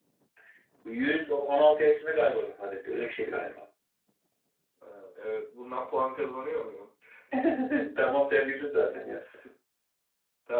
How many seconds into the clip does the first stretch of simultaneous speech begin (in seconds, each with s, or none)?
none